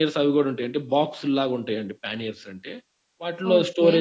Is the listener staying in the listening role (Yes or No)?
Yes